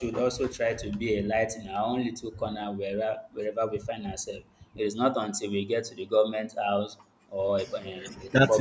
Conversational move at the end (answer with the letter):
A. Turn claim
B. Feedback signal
A